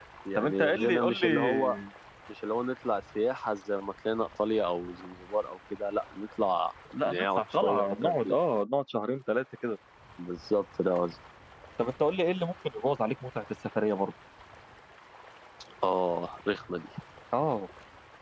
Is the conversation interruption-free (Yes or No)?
No